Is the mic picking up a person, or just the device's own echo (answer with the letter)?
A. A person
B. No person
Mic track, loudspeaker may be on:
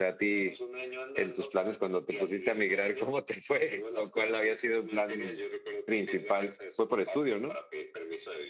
A